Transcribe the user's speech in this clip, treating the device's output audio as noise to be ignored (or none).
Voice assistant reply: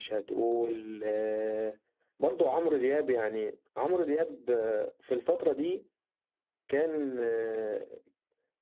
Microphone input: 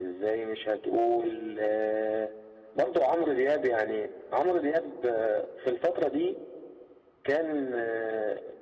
none